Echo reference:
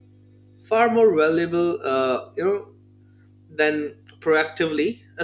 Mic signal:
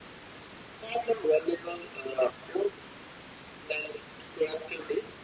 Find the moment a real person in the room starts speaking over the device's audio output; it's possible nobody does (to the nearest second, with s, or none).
none